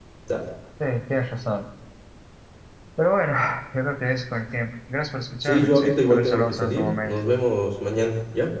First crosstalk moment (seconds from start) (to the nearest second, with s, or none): 5 s